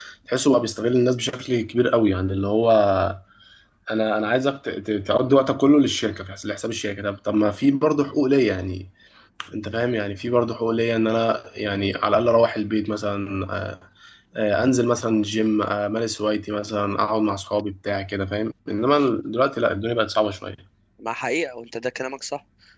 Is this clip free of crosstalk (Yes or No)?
Yes